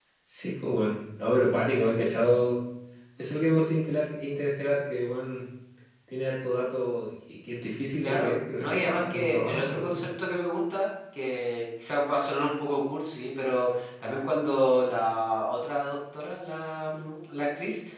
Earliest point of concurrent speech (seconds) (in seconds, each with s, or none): 8.0 s